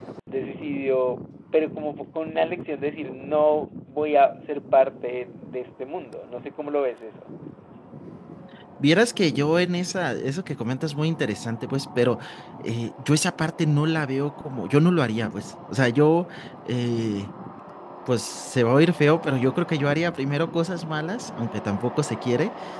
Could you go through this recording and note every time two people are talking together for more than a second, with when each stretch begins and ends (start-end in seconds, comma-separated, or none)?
none